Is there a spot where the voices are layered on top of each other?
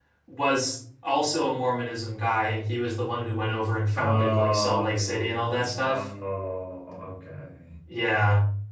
Yes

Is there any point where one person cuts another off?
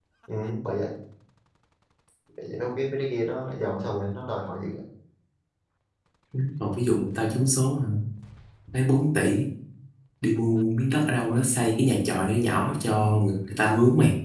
No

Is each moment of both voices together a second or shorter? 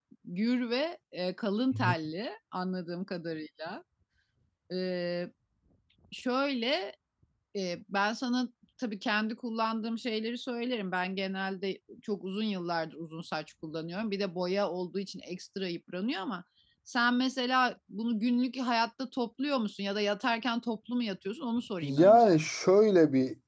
Yes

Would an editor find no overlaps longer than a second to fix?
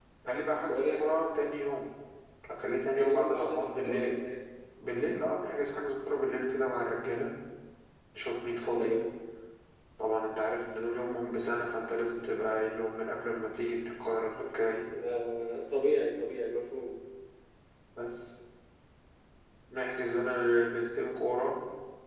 No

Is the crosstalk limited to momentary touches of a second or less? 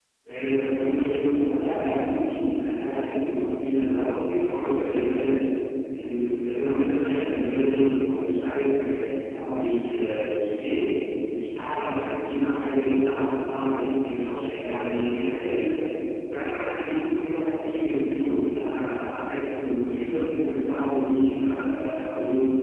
No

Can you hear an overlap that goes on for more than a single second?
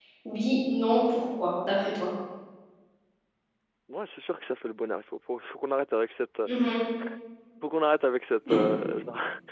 No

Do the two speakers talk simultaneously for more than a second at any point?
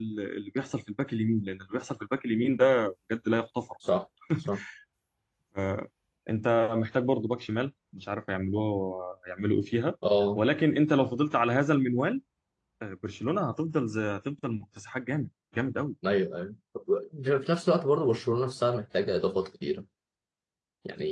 No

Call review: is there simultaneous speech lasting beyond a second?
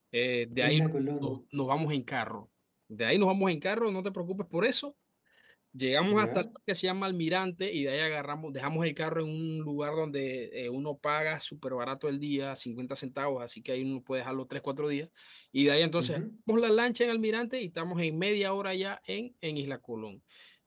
No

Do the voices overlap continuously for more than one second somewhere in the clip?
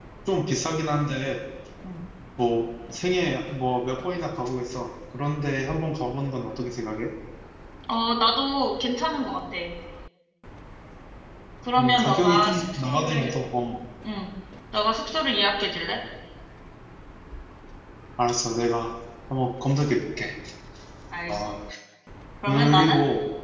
Yes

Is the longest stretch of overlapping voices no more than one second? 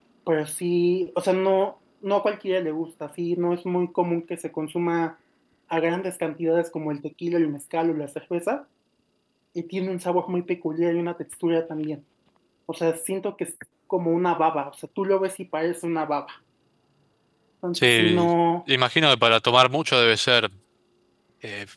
Yes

